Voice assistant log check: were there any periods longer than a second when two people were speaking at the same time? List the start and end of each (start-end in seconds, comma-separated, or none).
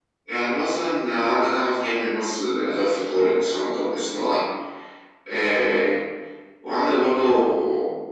none